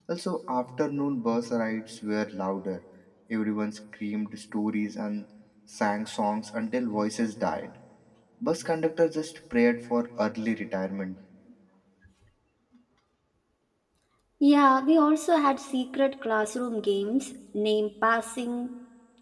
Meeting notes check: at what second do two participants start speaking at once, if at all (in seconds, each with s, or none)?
none